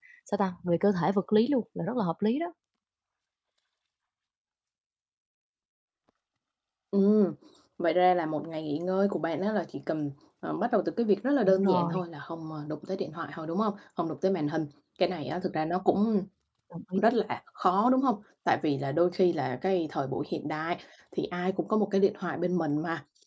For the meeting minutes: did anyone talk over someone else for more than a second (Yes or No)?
No